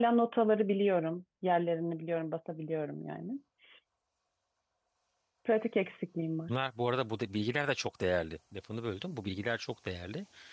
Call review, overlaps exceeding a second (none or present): none